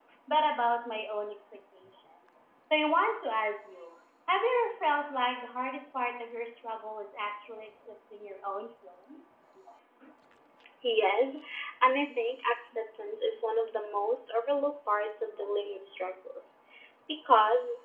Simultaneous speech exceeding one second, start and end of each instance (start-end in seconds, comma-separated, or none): none